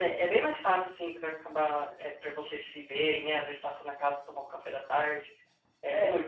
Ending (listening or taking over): listening